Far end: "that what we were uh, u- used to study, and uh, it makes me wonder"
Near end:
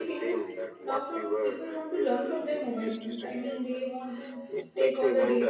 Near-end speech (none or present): present